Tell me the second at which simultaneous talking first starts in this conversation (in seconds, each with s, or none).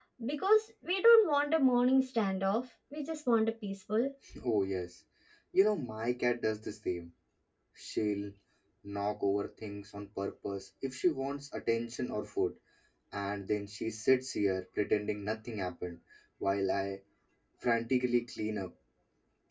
none